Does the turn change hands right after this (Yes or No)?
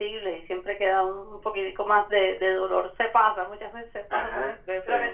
No